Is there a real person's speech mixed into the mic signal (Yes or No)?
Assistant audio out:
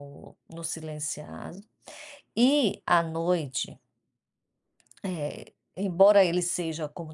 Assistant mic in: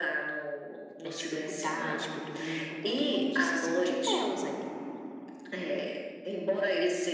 Yes